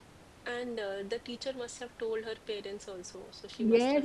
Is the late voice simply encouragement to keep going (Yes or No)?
No